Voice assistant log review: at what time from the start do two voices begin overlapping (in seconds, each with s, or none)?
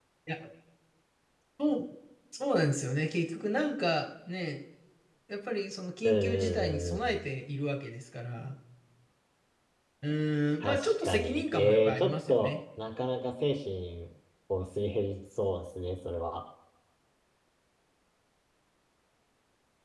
6.0 s